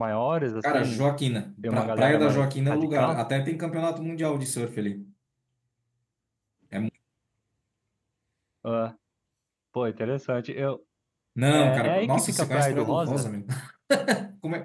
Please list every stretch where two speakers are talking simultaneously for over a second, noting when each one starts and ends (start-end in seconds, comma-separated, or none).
1.6-3.2, 11.5-13.2